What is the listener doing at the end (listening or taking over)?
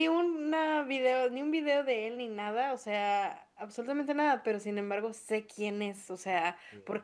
listening